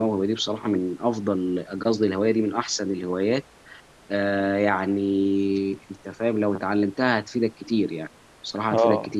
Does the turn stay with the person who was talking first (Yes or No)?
No